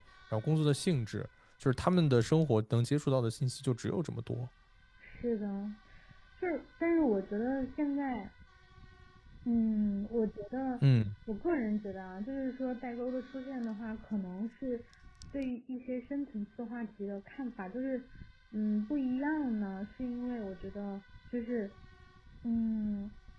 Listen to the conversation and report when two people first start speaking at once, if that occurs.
none

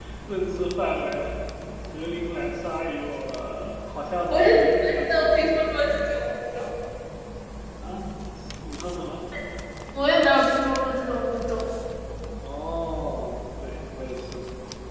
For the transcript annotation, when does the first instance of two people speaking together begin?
4 s

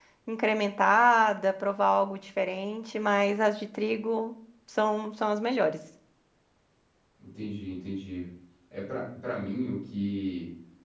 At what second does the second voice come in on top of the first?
none

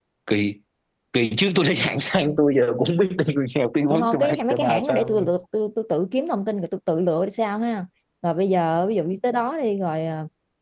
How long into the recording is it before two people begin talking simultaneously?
4 s

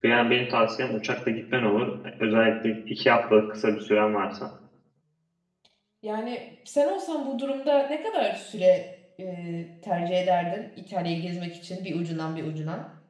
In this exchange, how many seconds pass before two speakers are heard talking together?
none

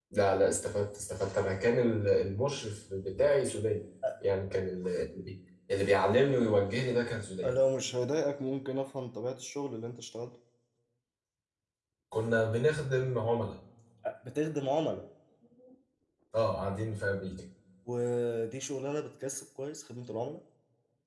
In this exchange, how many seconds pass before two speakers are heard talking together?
none

